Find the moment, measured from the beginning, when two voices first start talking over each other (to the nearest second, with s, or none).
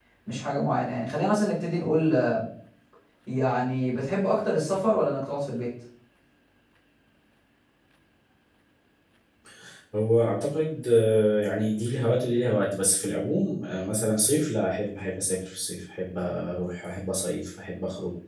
none